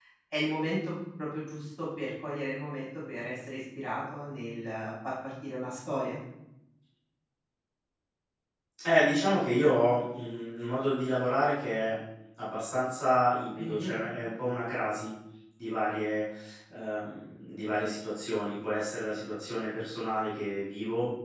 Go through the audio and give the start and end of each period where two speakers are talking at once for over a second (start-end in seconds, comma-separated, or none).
none